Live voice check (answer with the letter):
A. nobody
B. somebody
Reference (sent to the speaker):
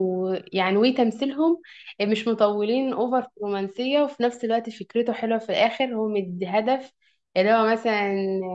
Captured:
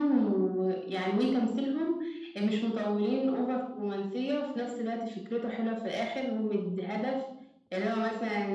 A